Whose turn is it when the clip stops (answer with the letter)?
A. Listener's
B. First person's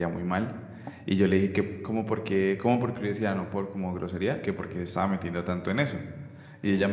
B